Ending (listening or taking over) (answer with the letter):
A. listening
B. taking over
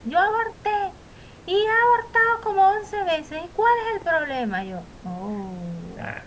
B